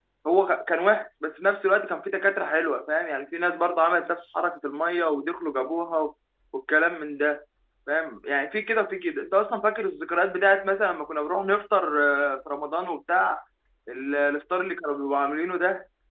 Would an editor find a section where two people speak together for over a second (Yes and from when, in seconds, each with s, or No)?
No